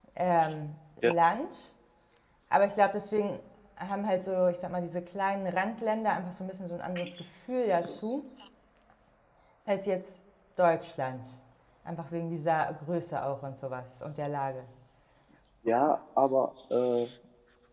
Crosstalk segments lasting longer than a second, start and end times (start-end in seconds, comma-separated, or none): none